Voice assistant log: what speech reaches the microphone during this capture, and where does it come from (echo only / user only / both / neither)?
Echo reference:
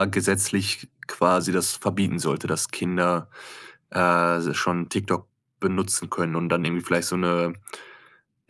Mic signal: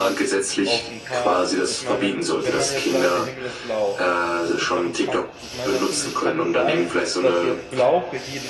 both